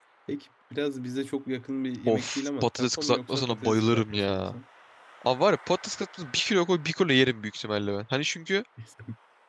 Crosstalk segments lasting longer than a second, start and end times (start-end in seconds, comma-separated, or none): 2.1-4.5